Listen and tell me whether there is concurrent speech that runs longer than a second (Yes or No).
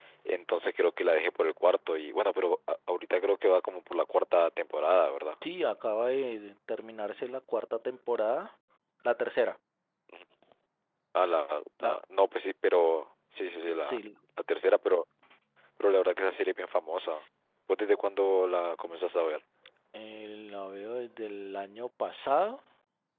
No